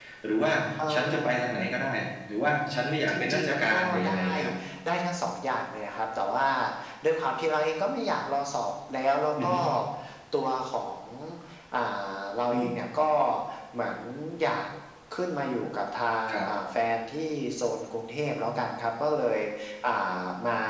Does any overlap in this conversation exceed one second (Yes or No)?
Yes